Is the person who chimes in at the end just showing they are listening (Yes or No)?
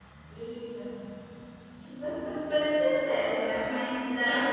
Yes